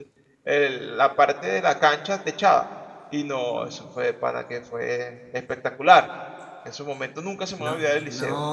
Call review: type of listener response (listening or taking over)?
taking over